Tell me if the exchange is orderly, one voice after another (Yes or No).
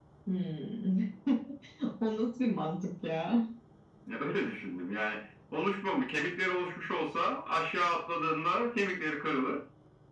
Yes